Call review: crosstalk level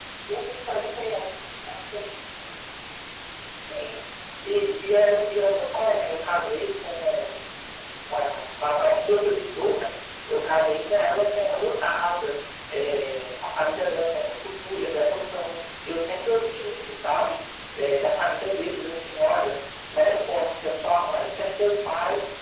none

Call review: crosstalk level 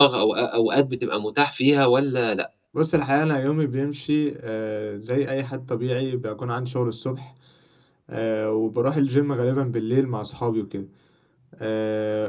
none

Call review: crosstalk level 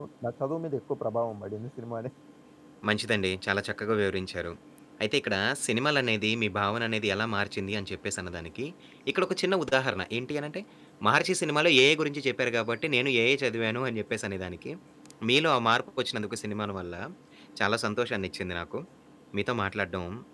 none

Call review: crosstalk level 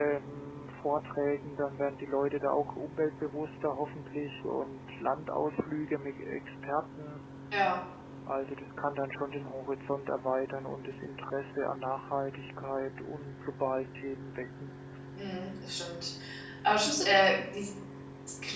none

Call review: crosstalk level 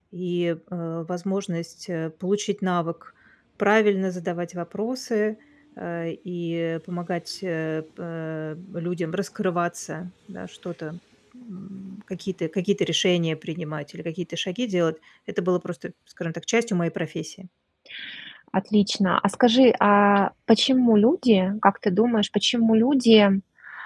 none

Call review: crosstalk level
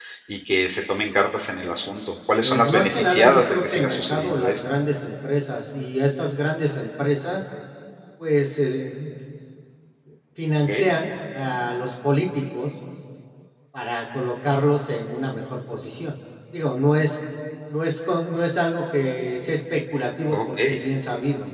present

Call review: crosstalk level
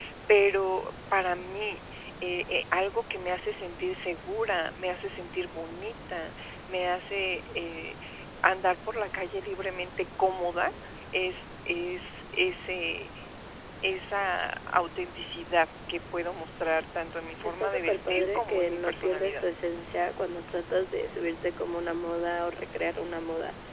present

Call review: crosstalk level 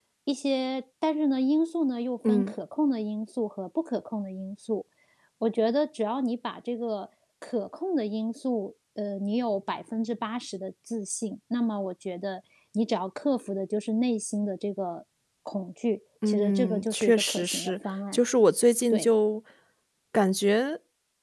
present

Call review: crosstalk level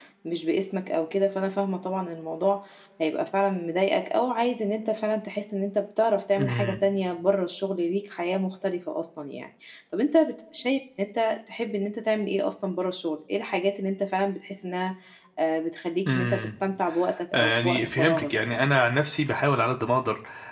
present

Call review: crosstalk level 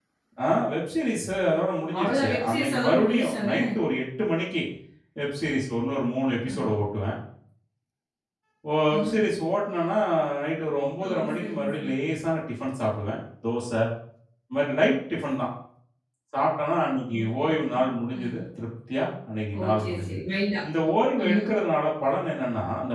present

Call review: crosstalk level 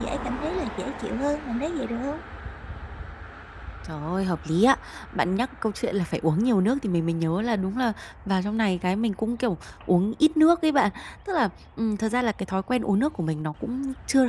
none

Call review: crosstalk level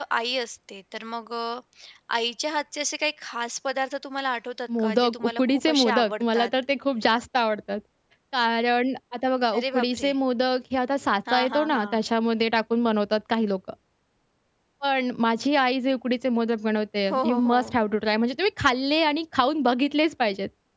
present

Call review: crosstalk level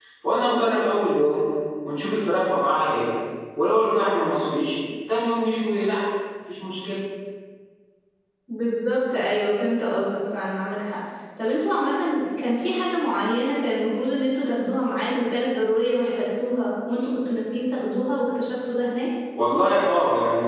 none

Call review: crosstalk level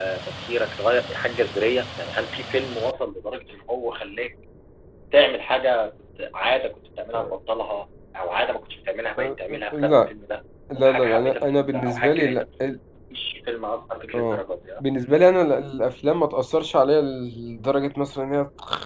present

